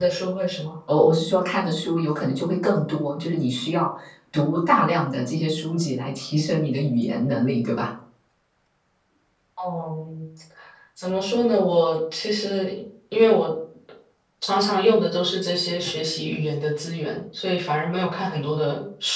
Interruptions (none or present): none